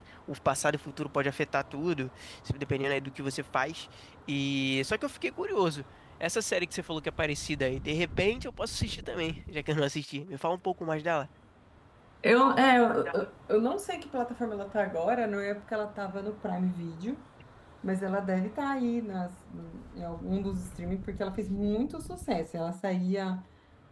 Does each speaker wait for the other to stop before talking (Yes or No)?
Yes